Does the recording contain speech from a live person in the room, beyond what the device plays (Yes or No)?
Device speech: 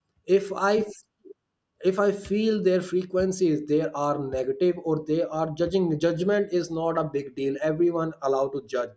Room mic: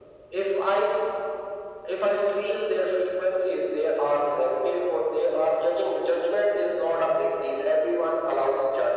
No